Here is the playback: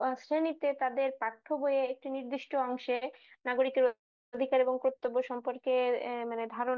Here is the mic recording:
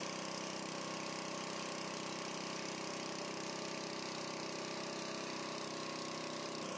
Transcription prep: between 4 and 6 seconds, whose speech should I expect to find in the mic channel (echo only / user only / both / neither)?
neither